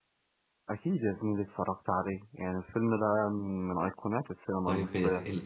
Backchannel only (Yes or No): No